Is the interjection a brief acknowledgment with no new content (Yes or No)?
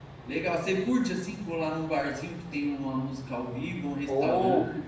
No